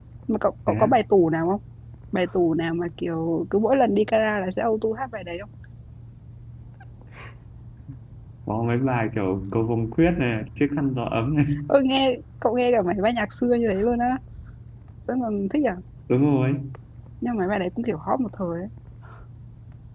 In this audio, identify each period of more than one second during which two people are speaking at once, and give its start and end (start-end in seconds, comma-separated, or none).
none